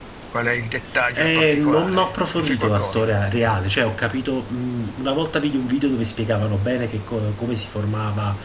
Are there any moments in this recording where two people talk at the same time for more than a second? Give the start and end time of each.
1.1-3.2

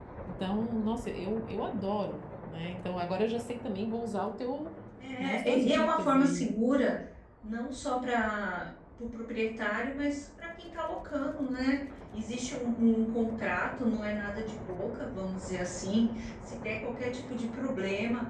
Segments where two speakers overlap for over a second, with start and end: 5.2-6.4

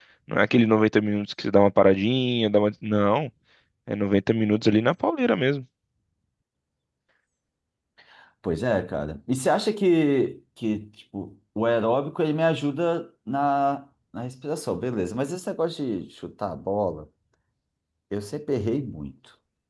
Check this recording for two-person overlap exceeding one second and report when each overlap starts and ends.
none

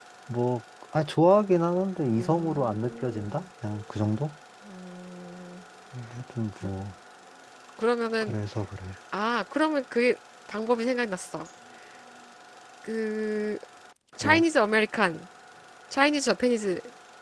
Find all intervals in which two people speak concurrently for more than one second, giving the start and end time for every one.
2.1-3.4

